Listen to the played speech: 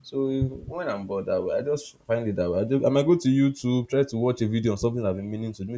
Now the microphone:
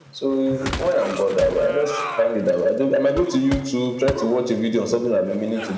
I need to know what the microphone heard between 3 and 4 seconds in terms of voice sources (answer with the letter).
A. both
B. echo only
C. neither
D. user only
B